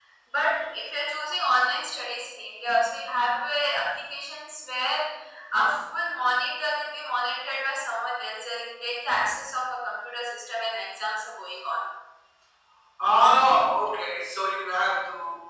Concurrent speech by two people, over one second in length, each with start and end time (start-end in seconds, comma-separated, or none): none